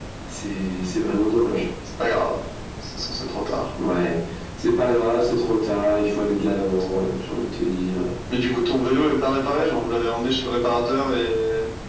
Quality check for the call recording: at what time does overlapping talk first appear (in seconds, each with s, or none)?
none